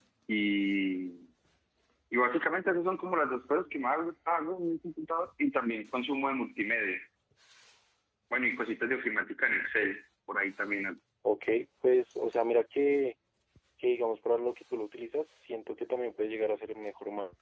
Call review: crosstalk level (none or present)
none